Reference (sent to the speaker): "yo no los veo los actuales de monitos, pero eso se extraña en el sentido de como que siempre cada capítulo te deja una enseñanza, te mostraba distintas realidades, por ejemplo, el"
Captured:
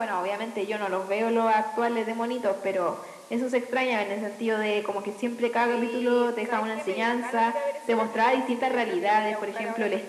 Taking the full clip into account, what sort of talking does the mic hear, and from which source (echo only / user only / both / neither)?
both